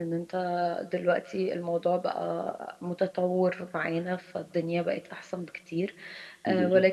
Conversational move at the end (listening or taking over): listening